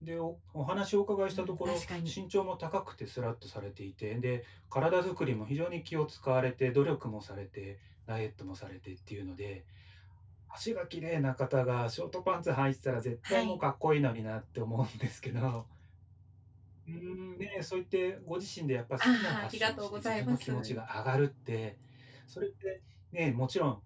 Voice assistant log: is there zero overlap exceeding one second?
No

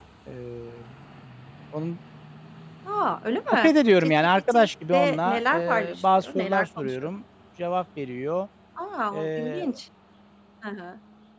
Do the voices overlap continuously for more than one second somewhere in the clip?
Yes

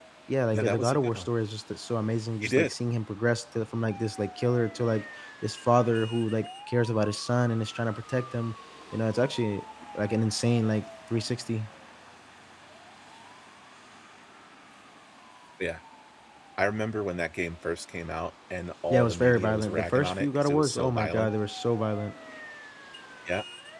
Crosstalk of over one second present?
Yes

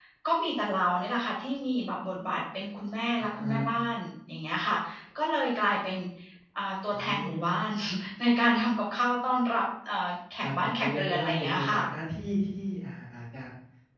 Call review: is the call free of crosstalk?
No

